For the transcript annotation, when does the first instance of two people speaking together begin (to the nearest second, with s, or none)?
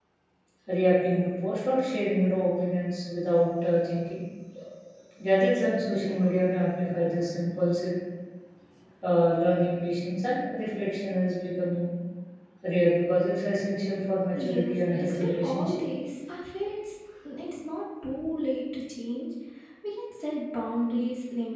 14 s